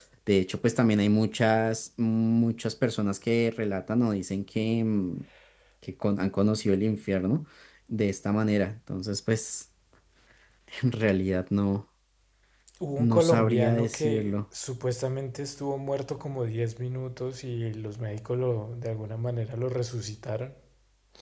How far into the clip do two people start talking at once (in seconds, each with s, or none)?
13.0 s